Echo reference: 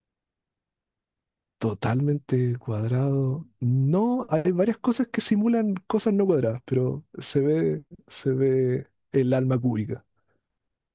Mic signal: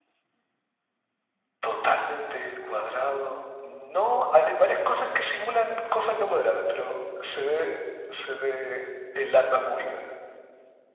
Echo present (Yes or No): Yes